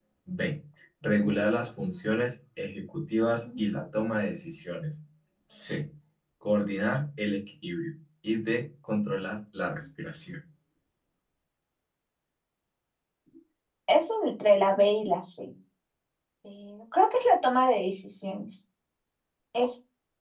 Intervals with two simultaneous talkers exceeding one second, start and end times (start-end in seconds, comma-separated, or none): none